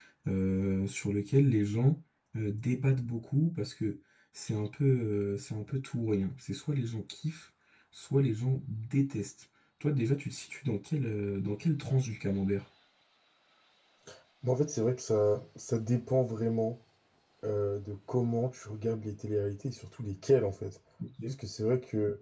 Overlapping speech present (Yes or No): No